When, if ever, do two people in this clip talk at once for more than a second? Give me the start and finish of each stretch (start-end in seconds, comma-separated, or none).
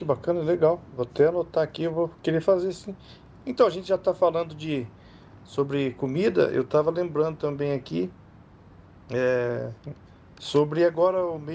none